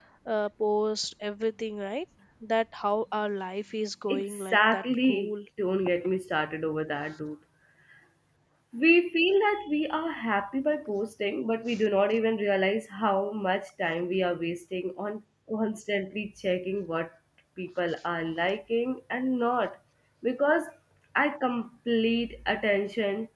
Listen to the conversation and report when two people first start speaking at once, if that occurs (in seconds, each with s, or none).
4.1 s